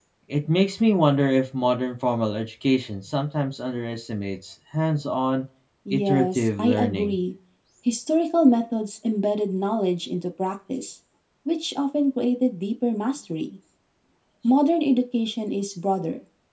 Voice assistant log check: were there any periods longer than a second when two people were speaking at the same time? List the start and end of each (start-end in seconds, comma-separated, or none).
5.9-7.2